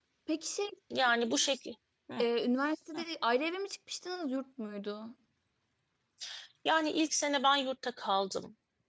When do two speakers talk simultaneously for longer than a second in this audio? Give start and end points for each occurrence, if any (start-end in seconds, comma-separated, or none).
none